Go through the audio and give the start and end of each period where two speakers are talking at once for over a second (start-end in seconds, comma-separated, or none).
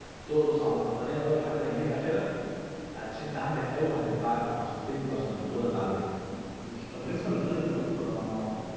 none